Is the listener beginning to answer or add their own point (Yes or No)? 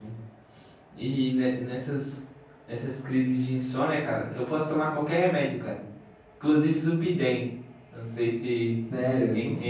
Yes